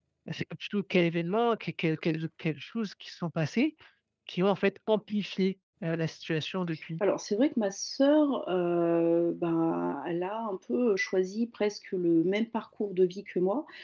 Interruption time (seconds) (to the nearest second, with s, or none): none